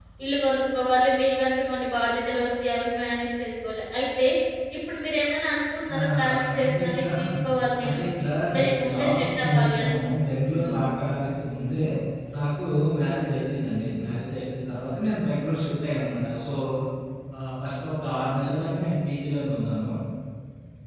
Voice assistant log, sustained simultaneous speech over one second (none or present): present